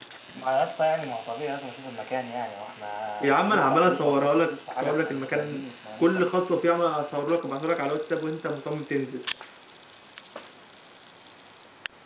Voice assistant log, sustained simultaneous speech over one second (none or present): present